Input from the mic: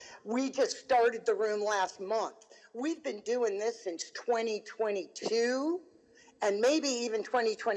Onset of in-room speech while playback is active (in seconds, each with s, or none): none